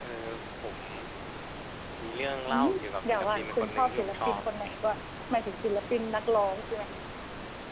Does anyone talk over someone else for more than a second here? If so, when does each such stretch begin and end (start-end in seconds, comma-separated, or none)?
3.0-4.4